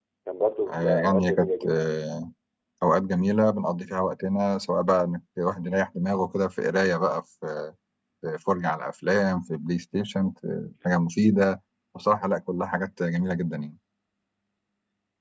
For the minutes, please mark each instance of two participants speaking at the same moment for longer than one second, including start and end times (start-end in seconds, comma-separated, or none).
0.7-1.9